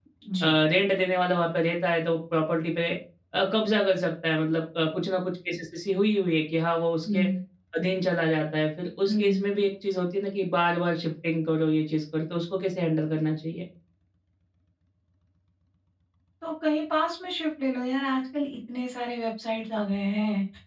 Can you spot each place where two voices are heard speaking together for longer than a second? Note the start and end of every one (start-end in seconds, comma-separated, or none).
none